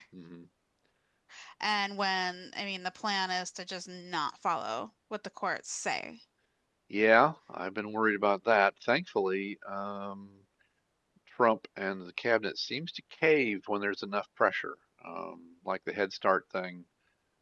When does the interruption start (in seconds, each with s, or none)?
none